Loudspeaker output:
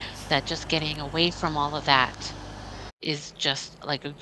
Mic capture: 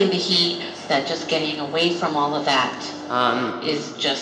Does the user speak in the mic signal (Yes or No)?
Yes